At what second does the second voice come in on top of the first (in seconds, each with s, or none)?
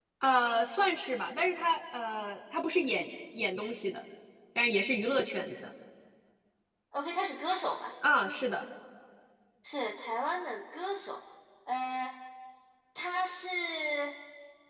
none